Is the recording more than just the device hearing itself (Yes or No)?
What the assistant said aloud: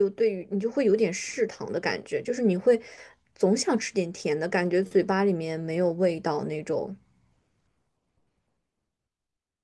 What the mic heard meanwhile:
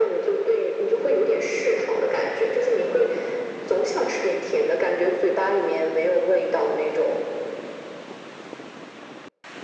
No